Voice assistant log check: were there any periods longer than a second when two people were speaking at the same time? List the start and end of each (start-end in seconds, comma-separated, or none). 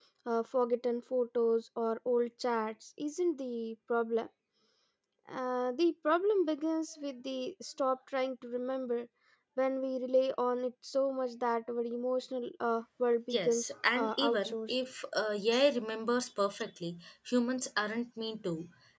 13.3-14.7